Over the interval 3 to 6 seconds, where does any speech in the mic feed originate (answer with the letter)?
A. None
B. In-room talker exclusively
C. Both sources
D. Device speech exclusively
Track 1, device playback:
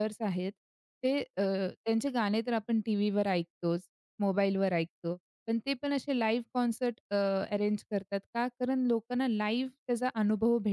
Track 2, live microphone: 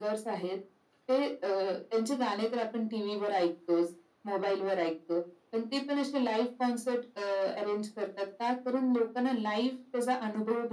D